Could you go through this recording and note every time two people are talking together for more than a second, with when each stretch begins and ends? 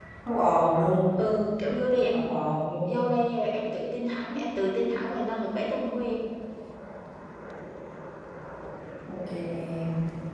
none

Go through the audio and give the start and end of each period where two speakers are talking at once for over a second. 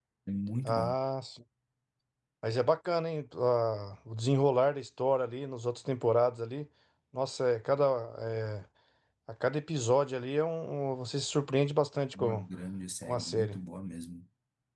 none

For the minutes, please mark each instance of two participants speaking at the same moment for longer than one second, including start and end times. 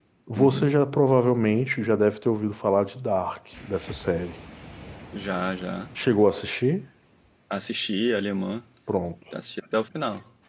none

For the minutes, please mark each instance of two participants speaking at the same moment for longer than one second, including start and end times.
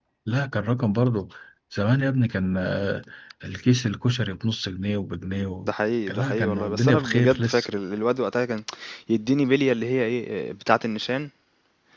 6.1-7.7

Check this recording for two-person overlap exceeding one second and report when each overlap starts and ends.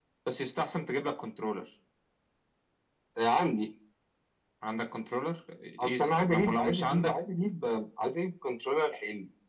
5.8-7.2

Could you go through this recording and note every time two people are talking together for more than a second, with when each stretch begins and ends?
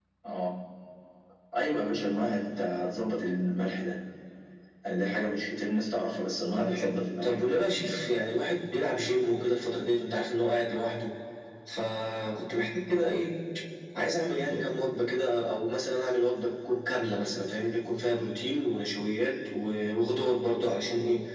6.5-7.8

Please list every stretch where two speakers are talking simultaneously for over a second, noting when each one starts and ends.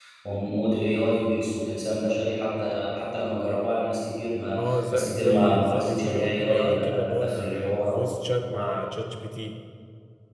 4.6-8.0

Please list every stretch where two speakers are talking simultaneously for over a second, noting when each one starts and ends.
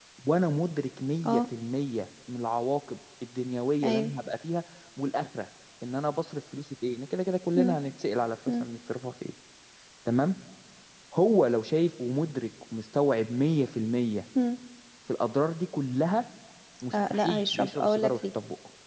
16.9-18.2

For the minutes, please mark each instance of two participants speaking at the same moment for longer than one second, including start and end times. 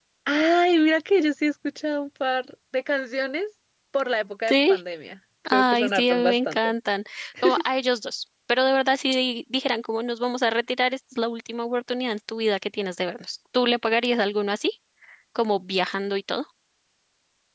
5.5-6.7

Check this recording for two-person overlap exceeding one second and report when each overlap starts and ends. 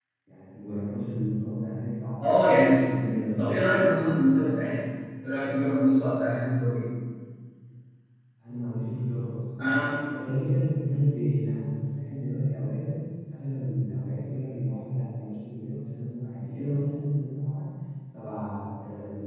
none

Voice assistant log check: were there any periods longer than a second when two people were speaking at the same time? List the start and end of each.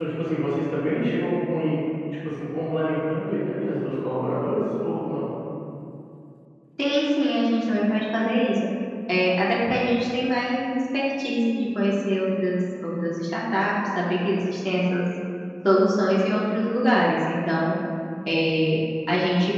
none

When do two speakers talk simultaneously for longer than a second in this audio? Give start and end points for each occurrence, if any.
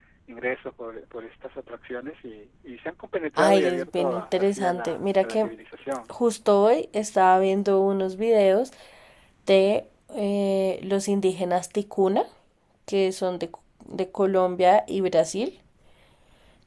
3.4-5.5

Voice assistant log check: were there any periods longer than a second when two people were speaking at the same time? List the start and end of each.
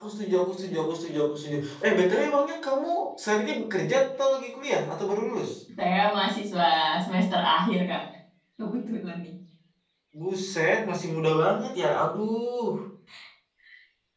none

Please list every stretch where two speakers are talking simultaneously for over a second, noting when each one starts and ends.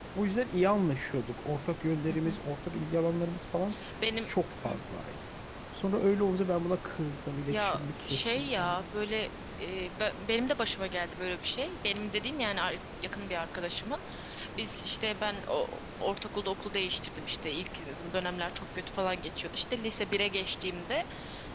7.5-8.8

